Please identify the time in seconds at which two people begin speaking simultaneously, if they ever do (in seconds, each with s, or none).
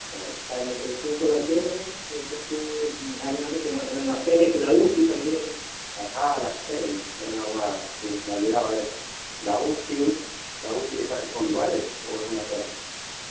none